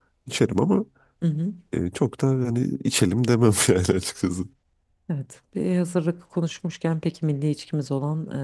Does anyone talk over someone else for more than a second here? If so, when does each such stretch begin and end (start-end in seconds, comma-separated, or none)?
none